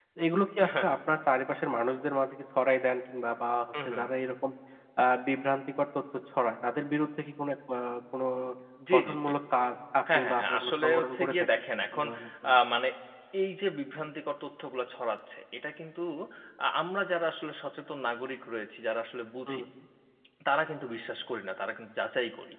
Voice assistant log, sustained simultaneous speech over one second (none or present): present